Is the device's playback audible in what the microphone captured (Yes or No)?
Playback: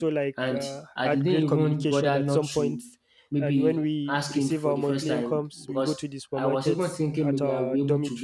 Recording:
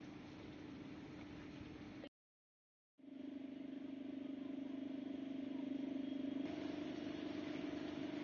No